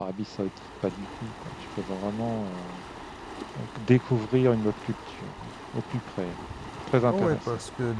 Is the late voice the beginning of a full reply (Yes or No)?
Yes